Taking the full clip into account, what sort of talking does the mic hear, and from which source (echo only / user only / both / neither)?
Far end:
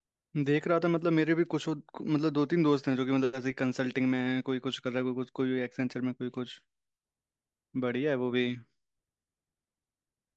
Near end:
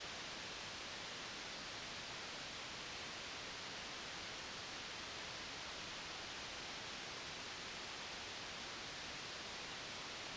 neither